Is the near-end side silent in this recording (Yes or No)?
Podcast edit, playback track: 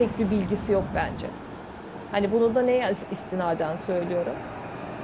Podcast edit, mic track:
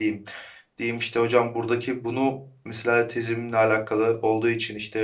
No